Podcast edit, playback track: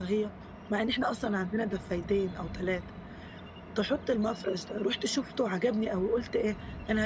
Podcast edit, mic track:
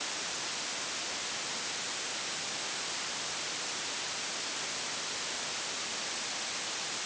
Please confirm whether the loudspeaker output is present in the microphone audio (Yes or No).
No